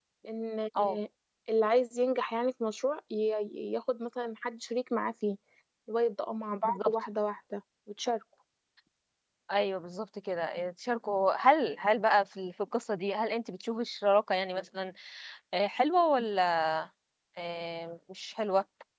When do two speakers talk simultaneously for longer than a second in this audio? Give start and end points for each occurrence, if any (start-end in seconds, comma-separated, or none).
none